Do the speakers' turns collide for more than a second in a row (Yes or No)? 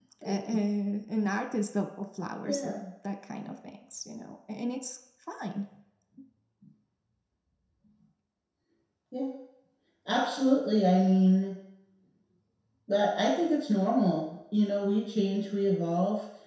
No